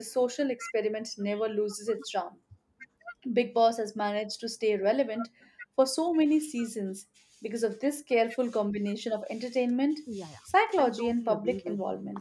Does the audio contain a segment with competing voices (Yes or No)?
Yes